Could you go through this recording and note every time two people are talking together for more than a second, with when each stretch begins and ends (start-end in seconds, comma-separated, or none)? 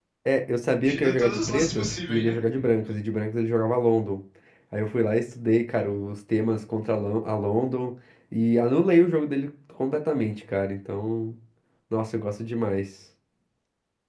0.8-2.4